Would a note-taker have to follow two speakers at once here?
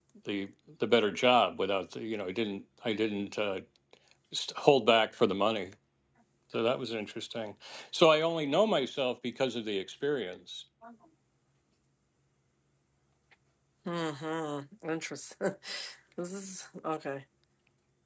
No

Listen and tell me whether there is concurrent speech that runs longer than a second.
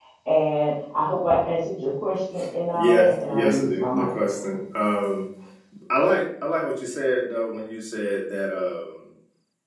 Yes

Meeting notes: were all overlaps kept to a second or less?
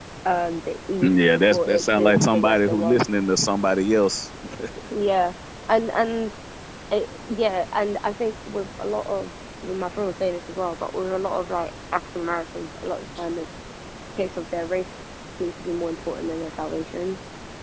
No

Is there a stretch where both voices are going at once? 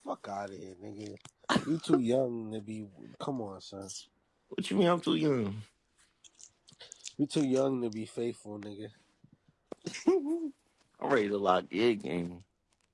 No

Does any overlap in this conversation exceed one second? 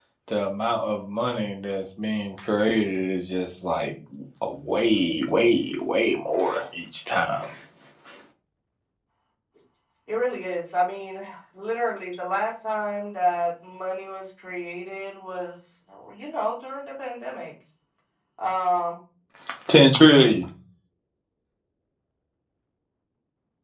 No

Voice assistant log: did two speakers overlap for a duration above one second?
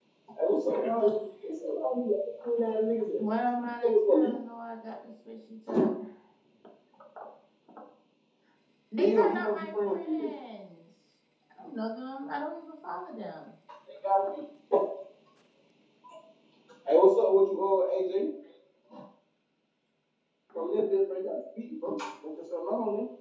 Yes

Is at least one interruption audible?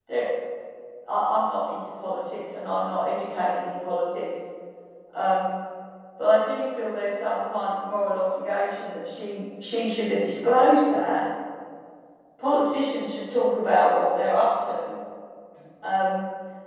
No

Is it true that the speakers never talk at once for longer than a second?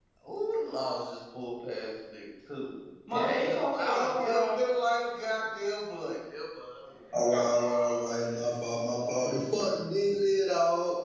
No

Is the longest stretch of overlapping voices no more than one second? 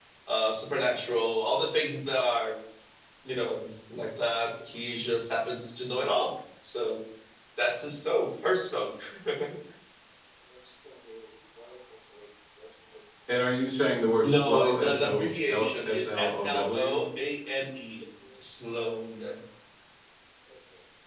No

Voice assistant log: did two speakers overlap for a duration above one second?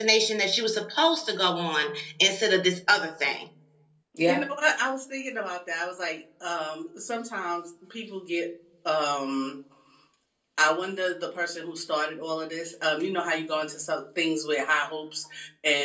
No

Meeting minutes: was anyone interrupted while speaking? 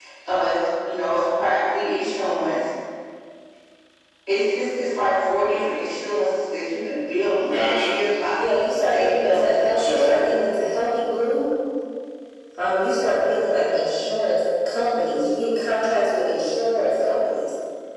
Yes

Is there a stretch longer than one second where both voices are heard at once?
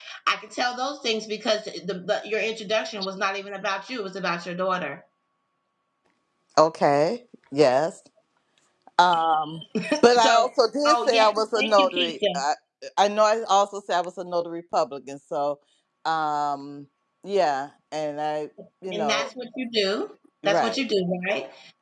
Yes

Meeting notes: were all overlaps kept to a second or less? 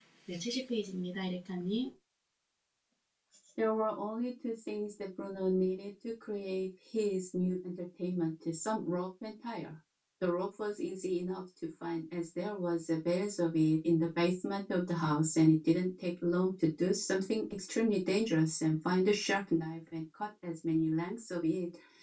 Yes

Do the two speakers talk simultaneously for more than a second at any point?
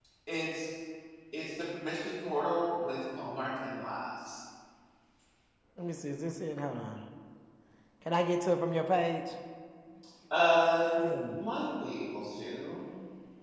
No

